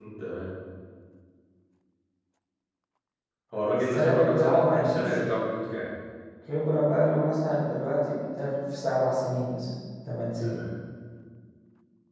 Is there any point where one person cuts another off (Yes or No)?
Yes